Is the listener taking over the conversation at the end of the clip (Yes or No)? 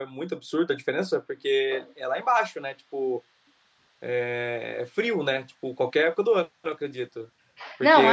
No